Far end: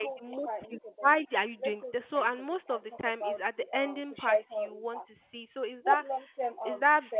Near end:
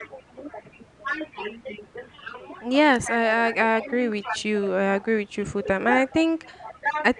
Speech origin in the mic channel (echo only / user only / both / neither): both